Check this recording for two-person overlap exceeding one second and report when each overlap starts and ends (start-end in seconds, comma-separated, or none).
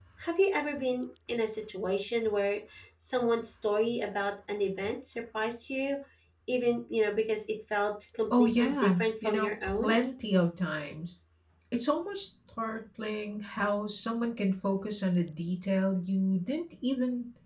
8.3-9.9